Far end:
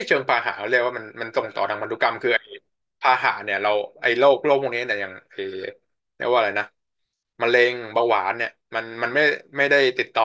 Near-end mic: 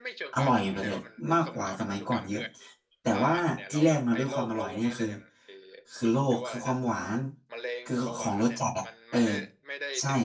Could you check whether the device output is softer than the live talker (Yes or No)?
Yes